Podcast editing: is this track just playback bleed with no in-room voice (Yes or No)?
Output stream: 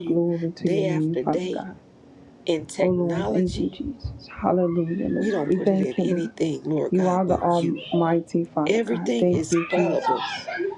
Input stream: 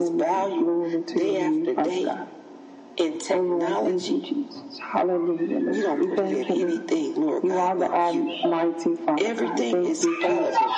Yes